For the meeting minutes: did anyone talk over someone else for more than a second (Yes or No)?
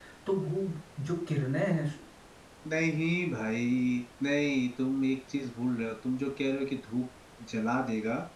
No